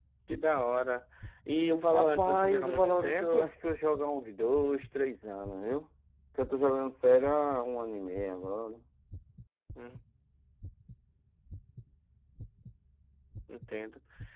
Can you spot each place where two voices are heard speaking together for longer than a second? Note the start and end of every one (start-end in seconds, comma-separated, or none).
1.9-3.5